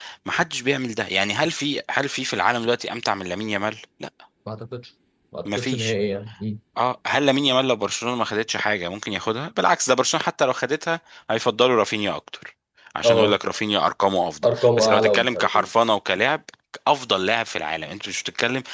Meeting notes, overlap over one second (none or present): present